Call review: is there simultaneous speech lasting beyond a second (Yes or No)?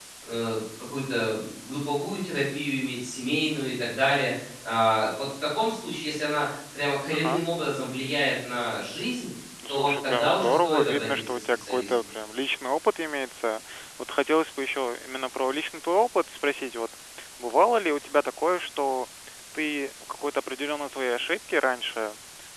Yes